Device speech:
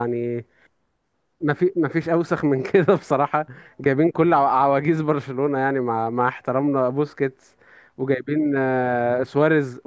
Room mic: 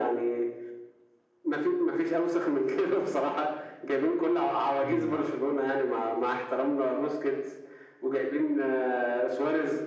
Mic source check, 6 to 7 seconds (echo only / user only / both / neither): echo only